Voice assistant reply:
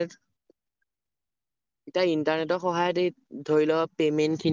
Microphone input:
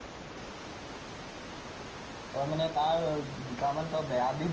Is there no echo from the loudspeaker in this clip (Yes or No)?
Yes